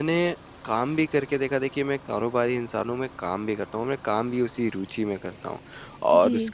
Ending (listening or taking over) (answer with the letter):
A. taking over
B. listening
B